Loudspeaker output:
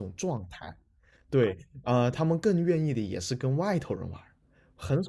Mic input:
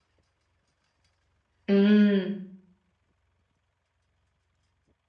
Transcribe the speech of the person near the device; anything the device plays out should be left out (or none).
嗯